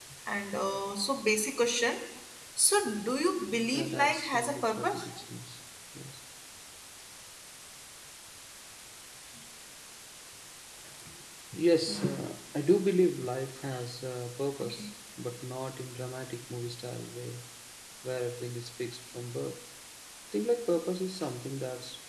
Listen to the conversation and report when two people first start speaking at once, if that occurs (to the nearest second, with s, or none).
4 s